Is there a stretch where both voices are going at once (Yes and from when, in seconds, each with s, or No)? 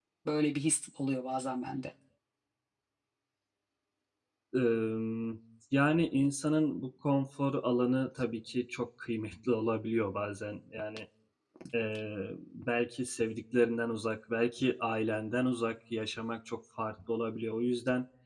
No